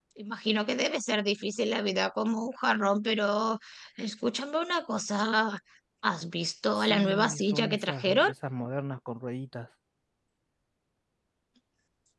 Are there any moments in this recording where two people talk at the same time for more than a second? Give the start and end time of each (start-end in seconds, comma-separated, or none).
6.8-8.3